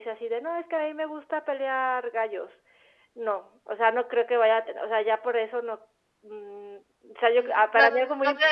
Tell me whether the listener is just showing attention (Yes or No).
No